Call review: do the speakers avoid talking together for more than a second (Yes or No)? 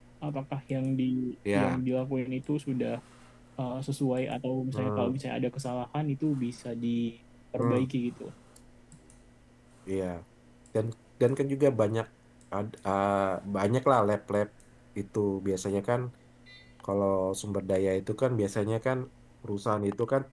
Yes